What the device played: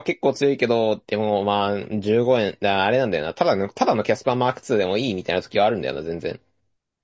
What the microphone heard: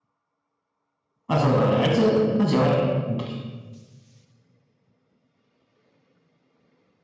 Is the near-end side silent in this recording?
No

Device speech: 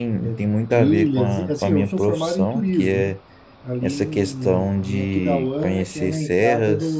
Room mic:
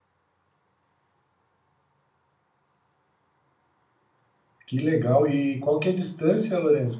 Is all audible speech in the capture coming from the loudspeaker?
No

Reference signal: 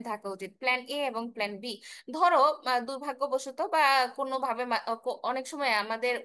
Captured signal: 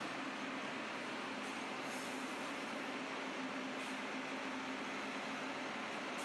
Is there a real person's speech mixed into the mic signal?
No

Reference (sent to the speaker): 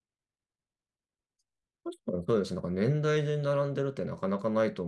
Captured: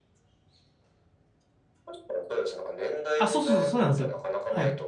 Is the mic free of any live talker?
No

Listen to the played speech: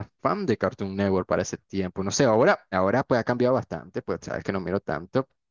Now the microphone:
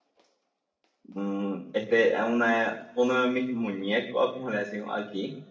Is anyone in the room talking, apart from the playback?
Yes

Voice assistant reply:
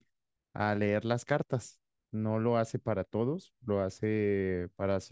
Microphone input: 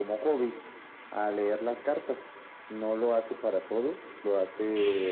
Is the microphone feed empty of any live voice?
Yes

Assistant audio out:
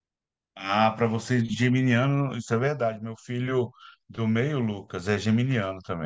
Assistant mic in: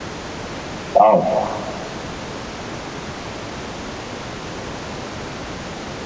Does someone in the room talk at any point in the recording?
Yes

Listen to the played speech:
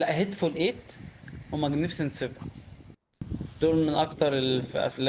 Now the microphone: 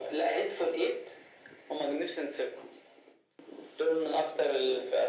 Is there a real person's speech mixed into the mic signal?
No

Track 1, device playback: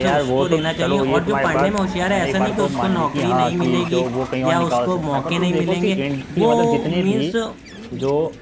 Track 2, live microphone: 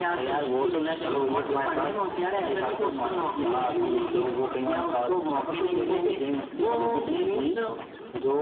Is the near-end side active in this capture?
No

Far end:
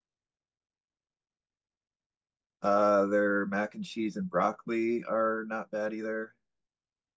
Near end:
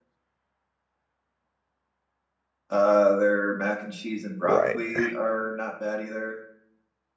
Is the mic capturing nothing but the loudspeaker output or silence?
No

